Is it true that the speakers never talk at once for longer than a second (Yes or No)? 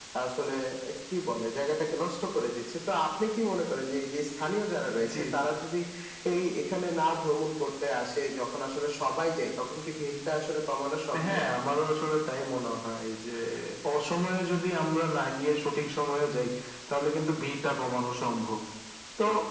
Yes